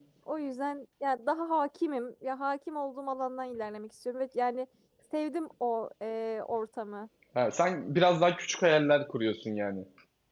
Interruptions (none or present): none